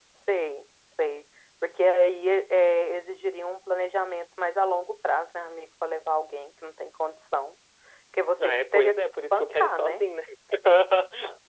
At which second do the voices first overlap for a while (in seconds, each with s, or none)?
8.4 s